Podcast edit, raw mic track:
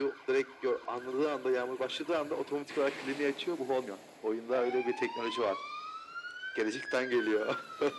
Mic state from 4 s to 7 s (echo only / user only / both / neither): echo only